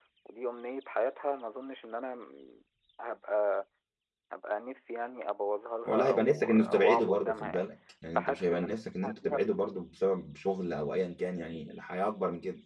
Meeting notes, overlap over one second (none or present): present